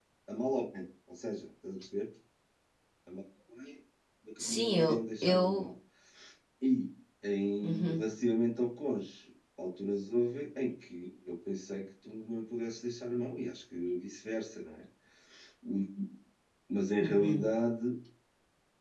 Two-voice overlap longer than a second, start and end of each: 4.4-5.7

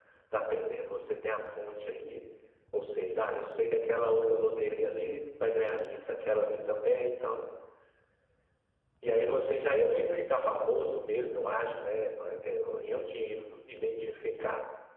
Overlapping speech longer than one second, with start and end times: none

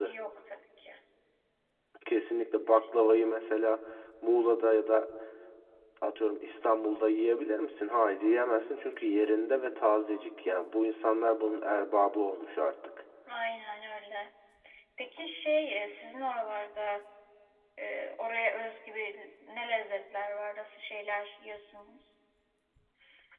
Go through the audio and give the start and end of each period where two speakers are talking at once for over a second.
none

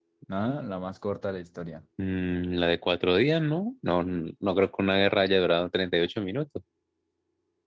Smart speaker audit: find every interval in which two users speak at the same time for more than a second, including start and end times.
none

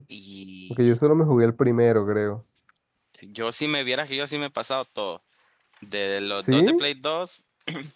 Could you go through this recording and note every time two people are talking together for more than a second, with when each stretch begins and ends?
none

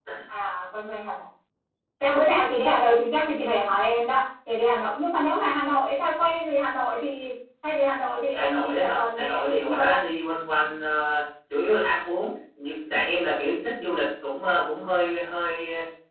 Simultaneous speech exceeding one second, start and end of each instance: 8.3-10.0

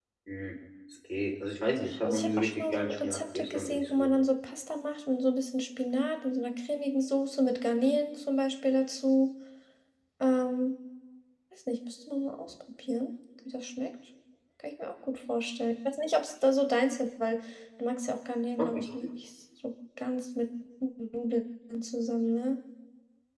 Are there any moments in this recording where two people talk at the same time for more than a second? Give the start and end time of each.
2.0-4.1

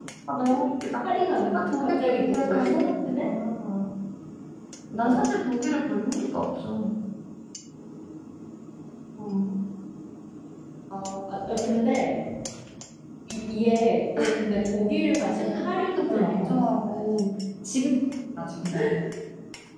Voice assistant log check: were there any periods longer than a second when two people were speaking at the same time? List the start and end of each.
1.5-3.3, 15.2-17.1

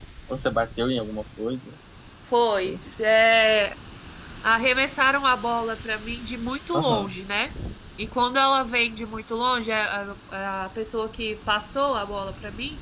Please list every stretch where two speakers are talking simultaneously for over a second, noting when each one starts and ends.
none

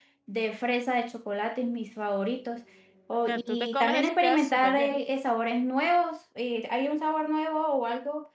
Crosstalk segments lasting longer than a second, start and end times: 3.3-5.0

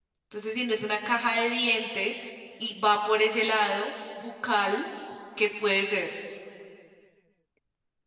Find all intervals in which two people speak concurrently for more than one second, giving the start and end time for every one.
none

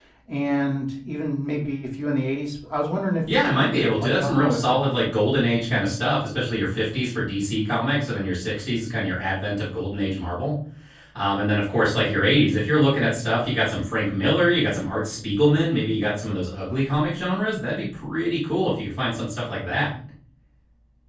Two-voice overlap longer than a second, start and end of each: 3.5-4.8

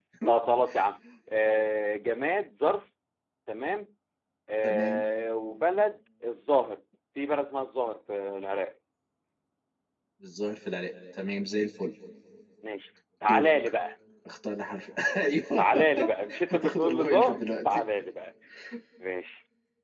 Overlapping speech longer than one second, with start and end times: 16.5-17.8

